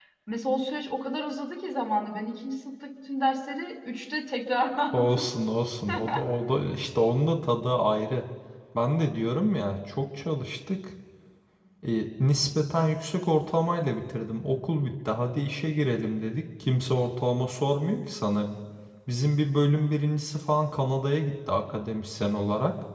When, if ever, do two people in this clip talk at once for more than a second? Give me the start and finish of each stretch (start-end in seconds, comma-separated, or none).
none